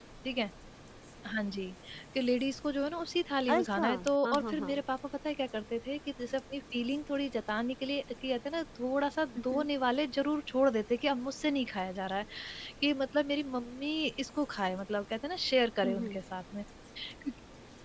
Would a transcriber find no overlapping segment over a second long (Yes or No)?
No